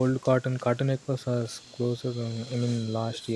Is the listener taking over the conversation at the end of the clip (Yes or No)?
No